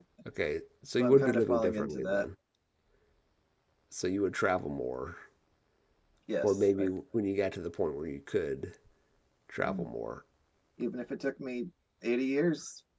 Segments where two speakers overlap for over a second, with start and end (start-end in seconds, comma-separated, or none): 1.0-2.3